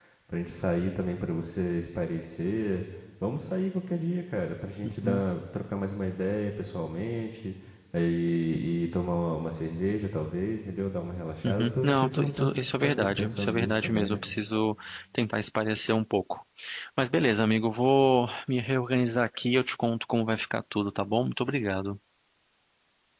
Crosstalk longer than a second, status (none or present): present